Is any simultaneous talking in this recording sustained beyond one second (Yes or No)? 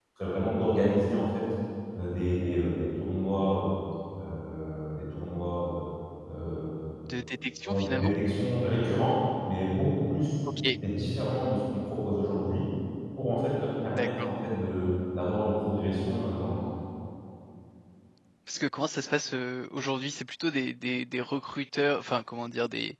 No